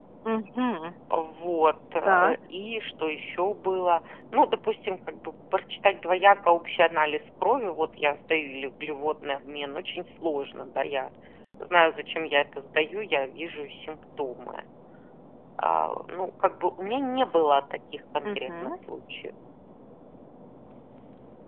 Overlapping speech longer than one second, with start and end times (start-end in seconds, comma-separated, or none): none